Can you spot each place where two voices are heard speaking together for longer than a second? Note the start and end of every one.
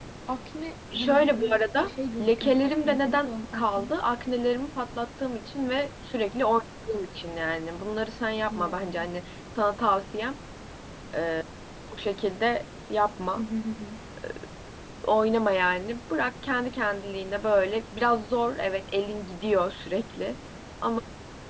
0.9-3.8

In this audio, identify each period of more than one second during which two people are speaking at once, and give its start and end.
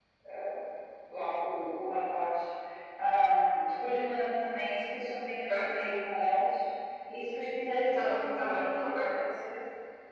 7.9-9.2

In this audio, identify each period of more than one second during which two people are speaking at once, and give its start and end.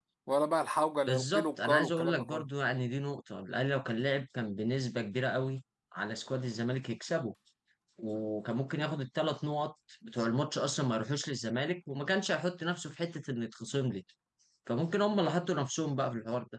1.1-2.5

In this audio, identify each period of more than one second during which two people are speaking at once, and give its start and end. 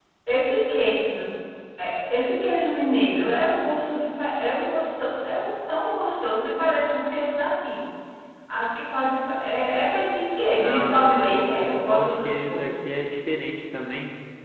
10.5-12.8

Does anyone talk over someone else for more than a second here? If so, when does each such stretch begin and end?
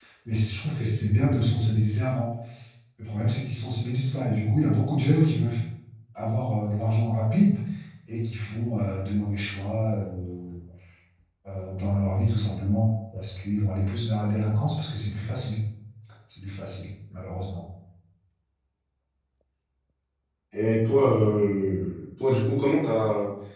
none

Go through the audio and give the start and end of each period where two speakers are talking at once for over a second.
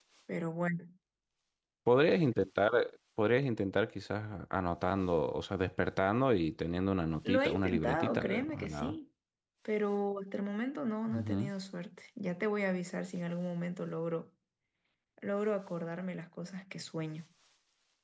7.2-9.0

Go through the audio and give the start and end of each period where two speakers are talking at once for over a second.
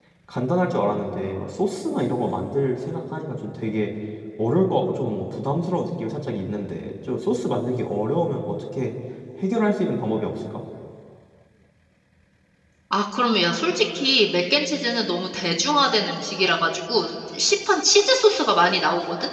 none

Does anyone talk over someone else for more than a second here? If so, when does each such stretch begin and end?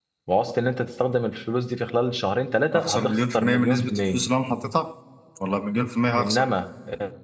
2.7-4.2

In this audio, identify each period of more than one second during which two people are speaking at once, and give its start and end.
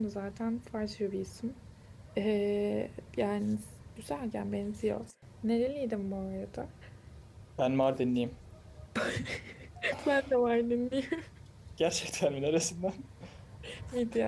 none

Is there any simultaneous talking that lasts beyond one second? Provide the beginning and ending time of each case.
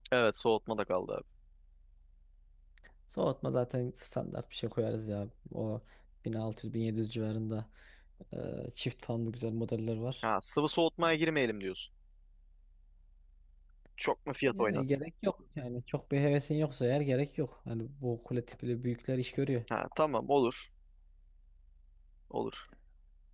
none

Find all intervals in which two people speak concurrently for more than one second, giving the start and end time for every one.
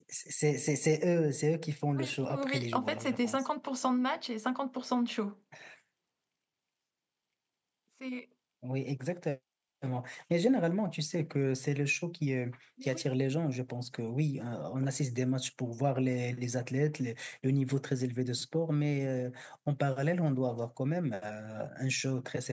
1.9-3.4

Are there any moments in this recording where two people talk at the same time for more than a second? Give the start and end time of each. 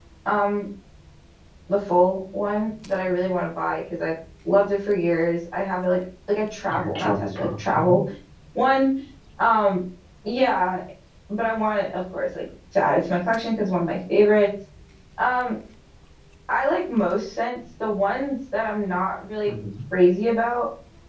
6.7-7.9

